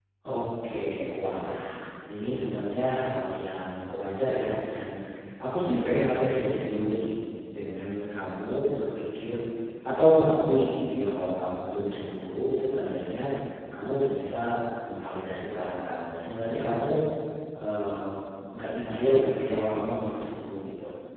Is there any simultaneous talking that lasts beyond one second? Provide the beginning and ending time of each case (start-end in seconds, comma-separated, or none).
none